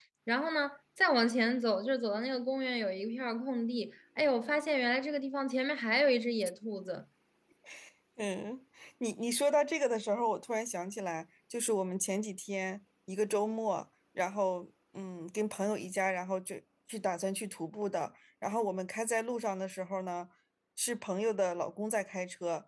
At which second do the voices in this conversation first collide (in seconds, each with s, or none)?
none